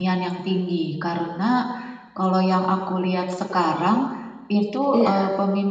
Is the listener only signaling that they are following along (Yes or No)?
Yes